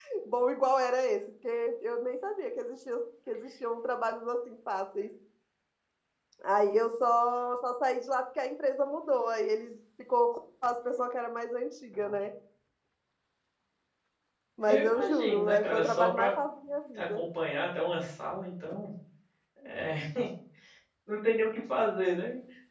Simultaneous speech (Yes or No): Yes